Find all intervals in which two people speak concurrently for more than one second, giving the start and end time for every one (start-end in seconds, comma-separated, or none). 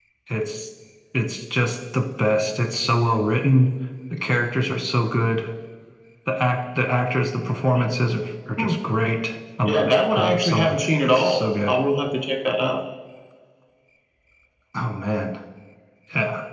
9.7-11.8